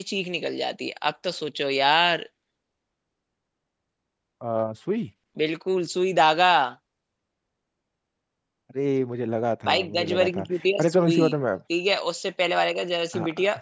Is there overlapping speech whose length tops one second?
Yes, from 9.6 s

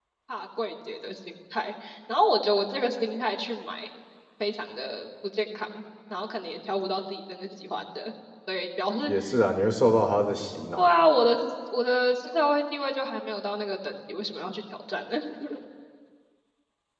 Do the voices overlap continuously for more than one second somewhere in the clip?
No

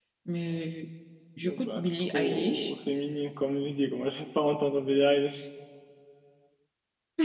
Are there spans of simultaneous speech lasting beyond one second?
Yes, from 1.4 s

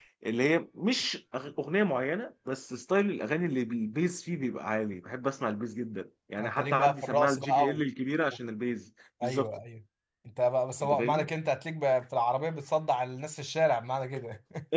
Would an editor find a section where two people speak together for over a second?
Yes, from 6.4 s

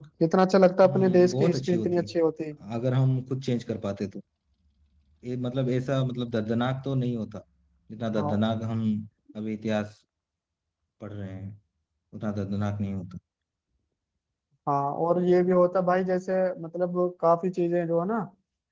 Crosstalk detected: Yes, from 0.8 s

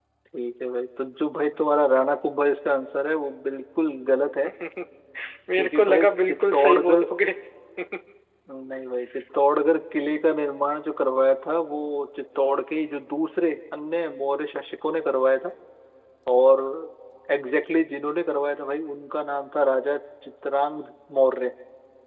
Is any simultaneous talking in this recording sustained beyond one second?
Yes, from 5.6 s

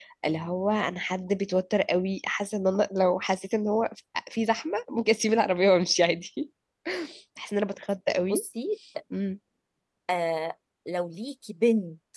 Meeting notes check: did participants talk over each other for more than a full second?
No

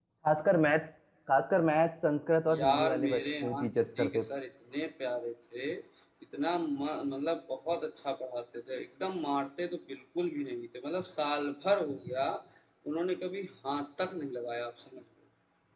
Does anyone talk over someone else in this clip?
Yes, from 2.5 s

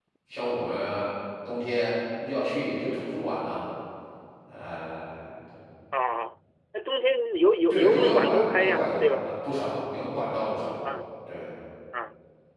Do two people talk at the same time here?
Yes, from 7.7 s

